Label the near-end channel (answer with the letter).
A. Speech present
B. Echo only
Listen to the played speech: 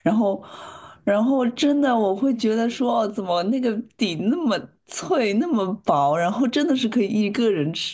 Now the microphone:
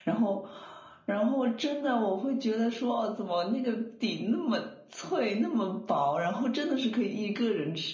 B